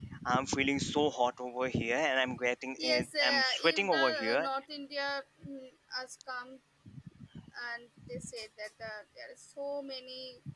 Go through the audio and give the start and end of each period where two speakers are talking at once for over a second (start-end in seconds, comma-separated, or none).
2.8-4.5